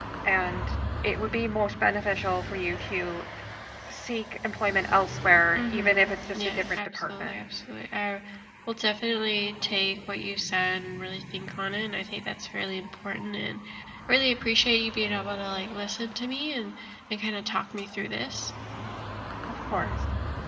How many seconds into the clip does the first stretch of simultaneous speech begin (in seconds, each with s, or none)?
5.6 s